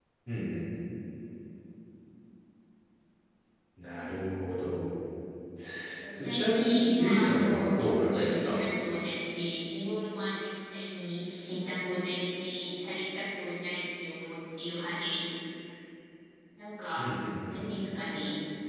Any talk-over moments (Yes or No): Yes